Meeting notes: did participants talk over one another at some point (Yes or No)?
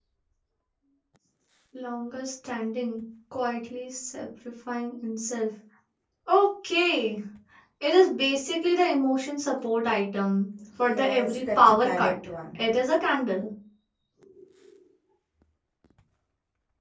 Yes